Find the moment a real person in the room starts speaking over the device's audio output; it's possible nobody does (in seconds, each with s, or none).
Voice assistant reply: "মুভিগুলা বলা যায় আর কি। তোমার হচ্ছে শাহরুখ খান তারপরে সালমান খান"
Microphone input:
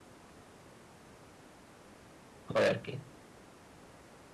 2.5 s